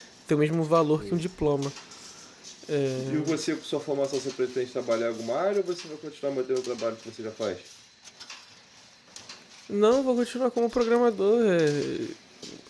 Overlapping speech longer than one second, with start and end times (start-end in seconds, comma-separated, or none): none